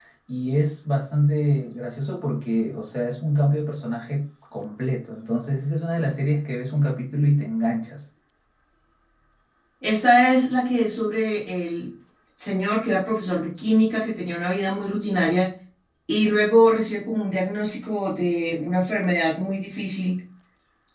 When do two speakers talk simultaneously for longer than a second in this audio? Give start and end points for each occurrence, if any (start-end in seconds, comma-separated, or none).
none